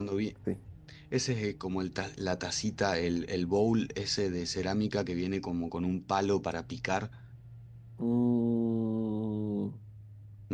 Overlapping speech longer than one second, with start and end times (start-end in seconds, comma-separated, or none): none